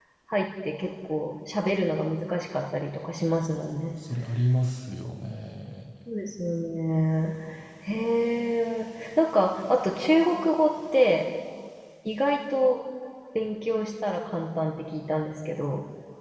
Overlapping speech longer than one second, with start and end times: none

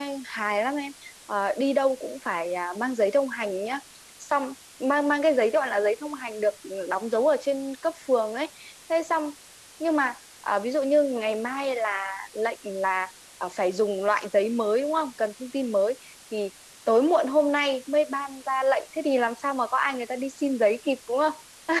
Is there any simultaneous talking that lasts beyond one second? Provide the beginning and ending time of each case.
none

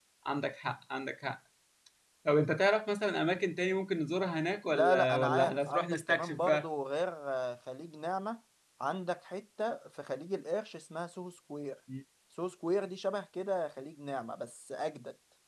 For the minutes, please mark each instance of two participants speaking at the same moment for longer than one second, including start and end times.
4.7-6.7

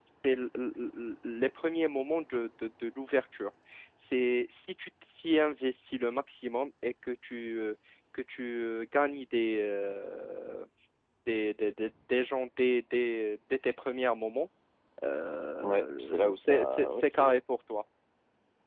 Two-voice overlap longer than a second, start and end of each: 15.6-17.3

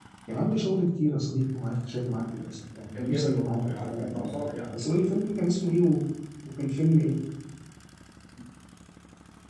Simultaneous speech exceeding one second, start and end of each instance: 2.9-4.3

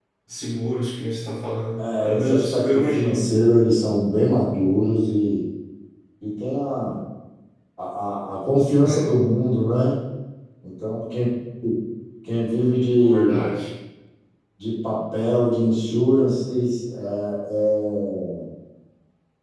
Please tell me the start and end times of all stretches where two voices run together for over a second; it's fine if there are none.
1.8-3.3

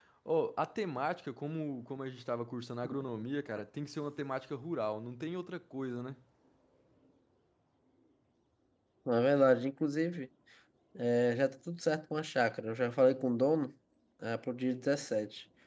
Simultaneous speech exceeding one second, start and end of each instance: none

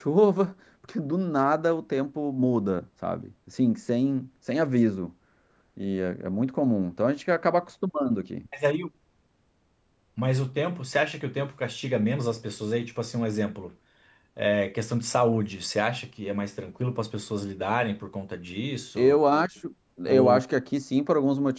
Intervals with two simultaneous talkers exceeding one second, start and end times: none

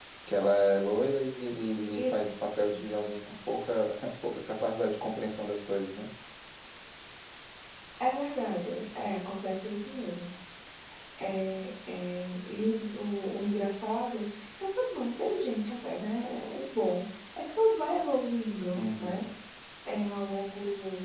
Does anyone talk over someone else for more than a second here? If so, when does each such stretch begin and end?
none

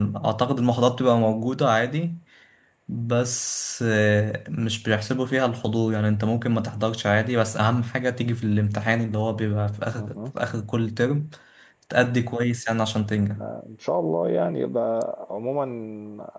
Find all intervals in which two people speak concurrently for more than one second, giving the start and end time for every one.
none

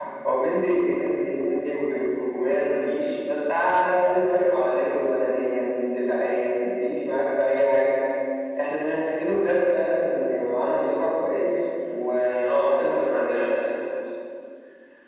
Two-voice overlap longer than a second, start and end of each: 11.9-13.3

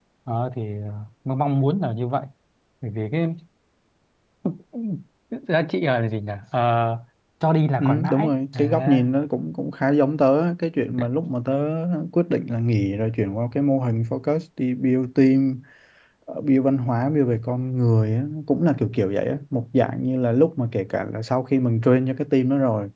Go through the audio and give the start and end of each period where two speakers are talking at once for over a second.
7.8-9.0

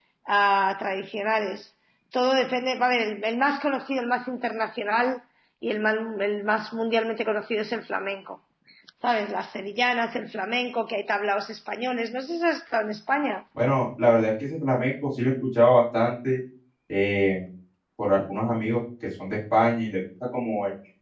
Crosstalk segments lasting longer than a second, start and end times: none

